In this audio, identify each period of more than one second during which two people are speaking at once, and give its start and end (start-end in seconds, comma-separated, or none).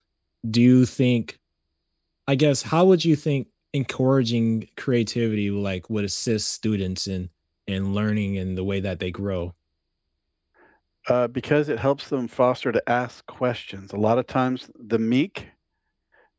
none